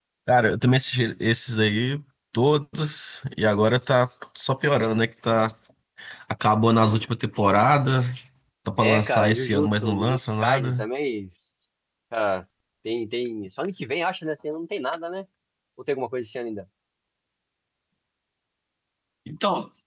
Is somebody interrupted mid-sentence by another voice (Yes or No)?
Yes